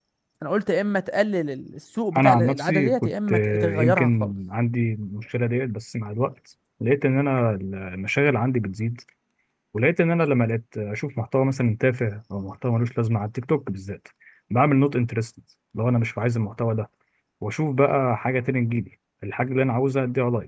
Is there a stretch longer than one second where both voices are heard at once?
Yes, from 2.1 s

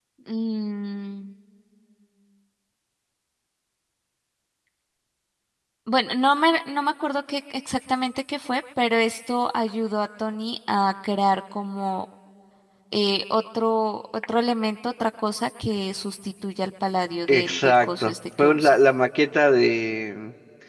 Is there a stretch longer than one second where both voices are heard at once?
Yes, from 17.3 s

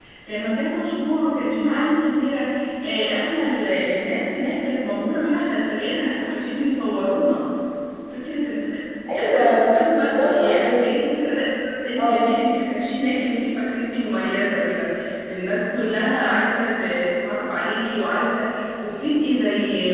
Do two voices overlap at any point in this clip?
Yes, from 9.2 s

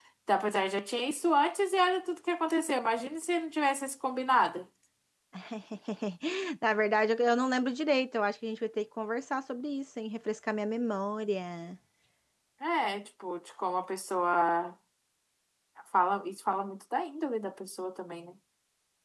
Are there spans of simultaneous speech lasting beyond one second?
No

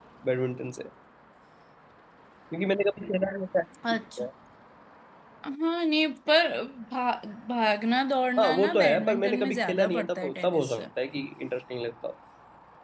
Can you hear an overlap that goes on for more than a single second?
Yes, from 8.4 s

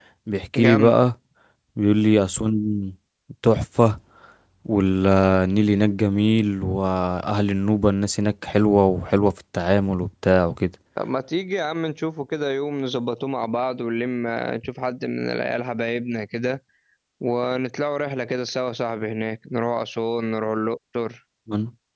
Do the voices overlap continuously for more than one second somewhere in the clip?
No

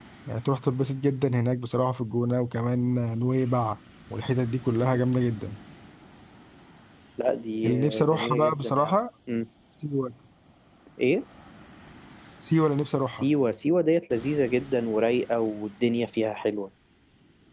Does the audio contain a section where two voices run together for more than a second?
Yes, from 7.6 s

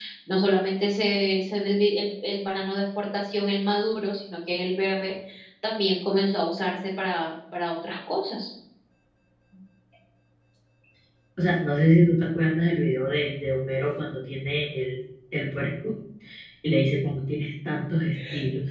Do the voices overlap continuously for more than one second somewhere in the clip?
No

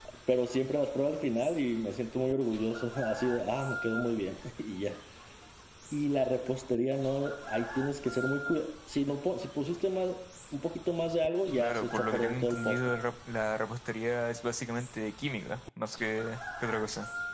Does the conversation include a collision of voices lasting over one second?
Yes, from 11.6 s

